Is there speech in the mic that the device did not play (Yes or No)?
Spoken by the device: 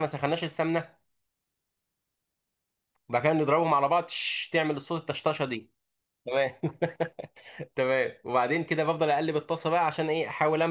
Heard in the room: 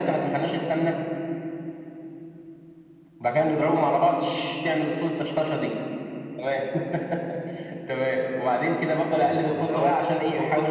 Yes